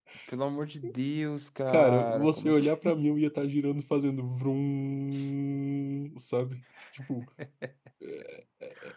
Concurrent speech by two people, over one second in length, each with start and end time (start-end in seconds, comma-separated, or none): 1.7-2.9